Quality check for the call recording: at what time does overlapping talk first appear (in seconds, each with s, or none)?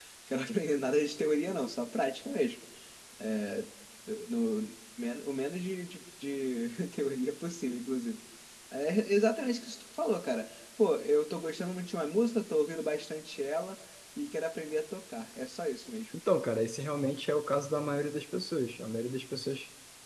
none